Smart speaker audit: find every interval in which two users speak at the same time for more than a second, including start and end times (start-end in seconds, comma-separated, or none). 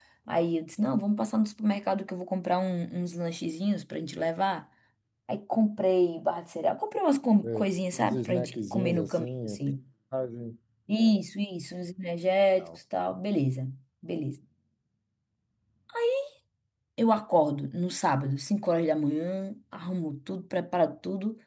7.5-9.6